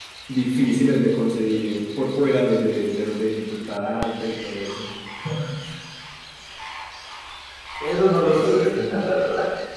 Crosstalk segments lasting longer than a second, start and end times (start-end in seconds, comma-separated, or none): none